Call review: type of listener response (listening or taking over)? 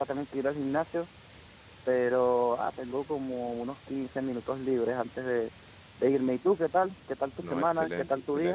taking over